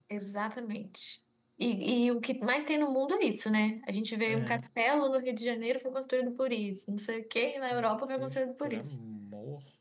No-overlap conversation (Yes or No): No